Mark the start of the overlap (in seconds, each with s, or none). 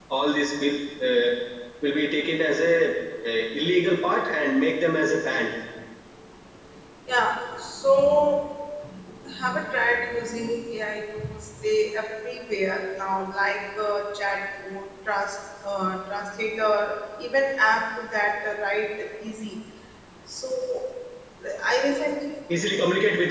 none